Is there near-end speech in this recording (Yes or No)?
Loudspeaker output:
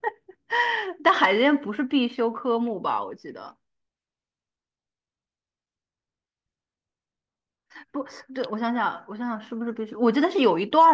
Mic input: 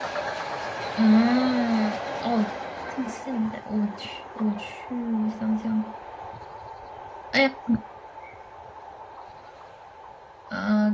Yes